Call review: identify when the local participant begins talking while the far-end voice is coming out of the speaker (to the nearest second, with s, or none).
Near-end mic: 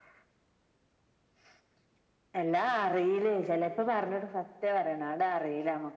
none